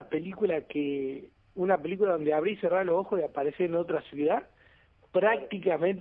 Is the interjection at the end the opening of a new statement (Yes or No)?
No